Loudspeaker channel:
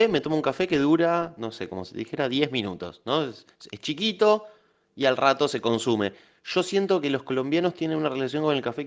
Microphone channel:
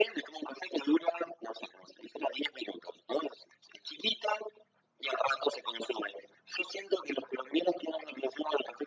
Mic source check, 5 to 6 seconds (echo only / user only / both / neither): echo only